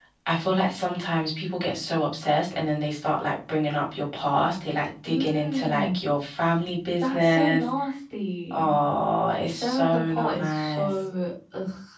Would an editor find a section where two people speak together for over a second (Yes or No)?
Yes